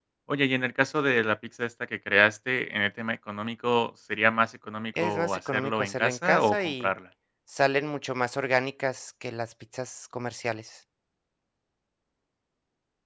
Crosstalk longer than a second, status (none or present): present